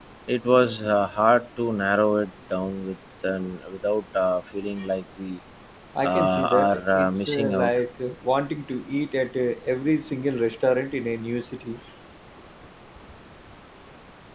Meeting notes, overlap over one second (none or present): present